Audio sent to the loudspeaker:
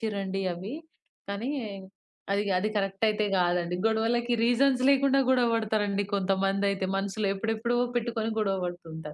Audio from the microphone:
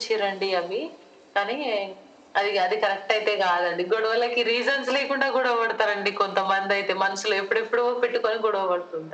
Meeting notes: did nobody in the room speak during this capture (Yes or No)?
Yes